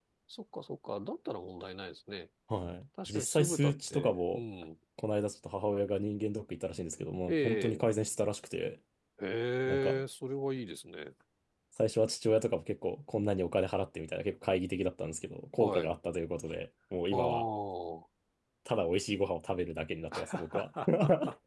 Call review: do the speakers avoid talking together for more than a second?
No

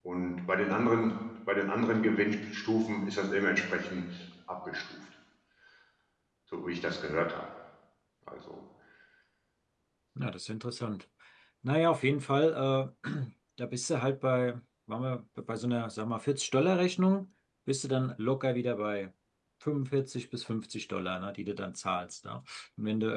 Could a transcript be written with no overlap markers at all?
Yes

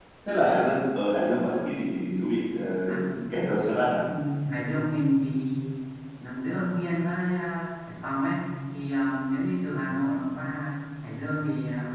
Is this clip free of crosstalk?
Yes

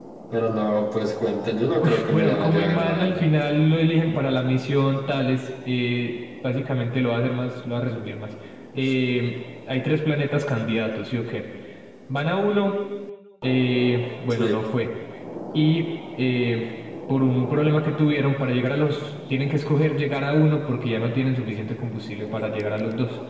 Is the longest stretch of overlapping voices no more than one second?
No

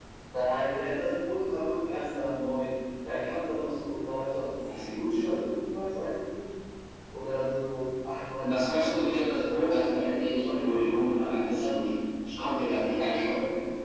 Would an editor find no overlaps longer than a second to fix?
No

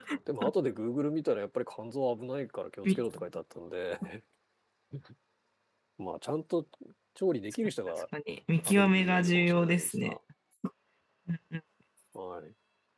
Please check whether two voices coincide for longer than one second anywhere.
Yes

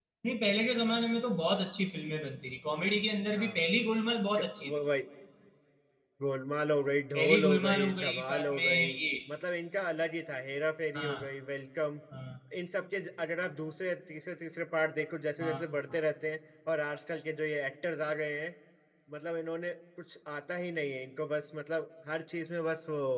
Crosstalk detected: Yes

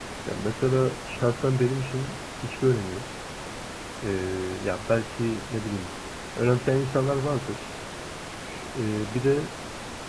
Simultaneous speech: No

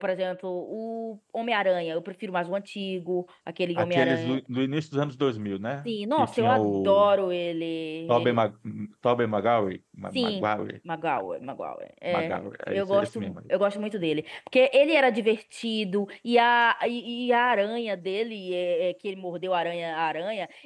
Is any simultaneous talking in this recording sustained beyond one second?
Yes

